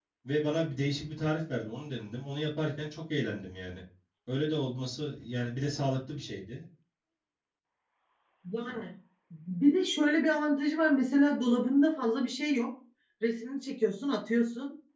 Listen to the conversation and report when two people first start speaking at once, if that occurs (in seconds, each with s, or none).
none